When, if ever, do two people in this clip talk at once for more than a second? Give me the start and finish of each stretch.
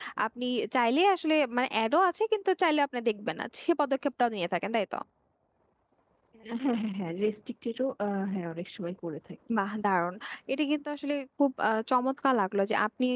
none

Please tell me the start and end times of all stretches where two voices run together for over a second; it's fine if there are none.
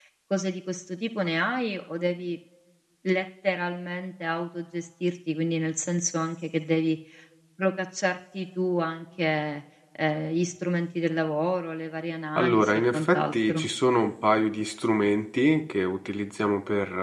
12.4-13.6

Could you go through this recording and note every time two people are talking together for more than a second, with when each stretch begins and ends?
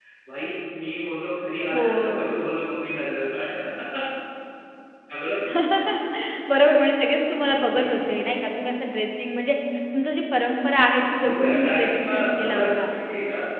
11.0-12.9

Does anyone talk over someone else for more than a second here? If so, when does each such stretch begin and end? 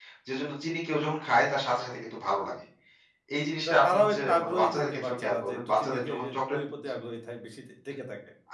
3.7-6.6

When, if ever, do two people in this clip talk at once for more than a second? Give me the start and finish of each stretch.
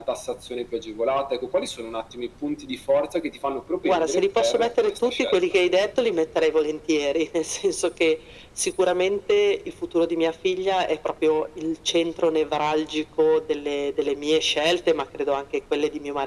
3.8-5.4

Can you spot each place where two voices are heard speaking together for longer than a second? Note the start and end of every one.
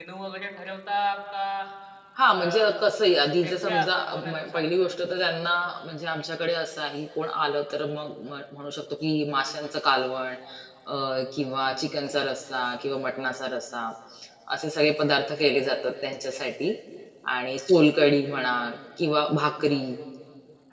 3.4-4.7

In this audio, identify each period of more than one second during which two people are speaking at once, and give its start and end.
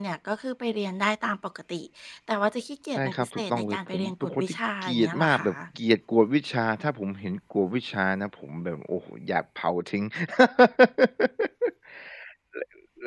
2.9-5.5

